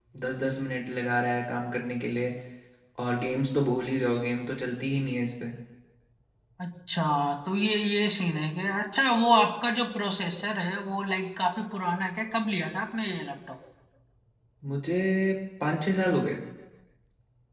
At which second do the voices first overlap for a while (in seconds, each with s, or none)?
none